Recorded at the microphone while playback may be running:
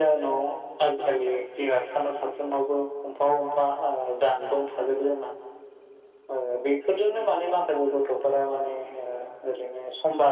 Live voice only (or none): none